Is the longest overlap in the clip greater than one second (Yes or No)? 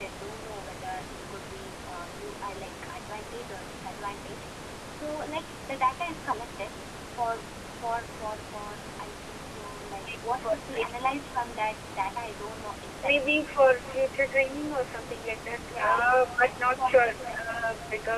Yes